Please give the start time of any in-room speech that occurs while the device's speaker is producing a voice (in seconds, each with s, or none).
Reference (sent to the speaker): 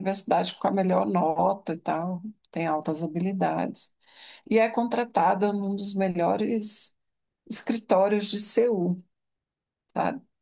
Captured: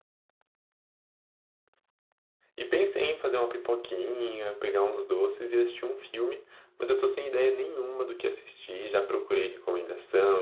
2.5 s